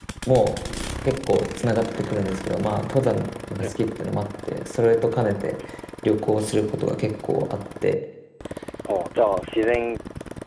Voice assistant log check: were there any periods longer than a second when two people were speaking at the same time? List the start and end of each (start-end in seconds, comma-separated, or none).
none